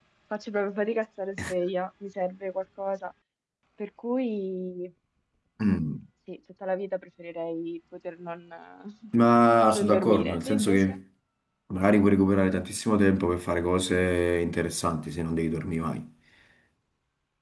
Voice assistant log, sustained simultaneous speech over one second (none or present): present